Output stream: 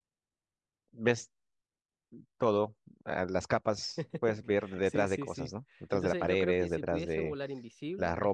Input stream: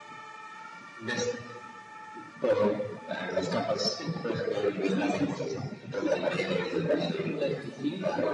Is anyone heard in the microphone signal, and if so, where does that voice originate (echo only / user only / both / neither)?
echo only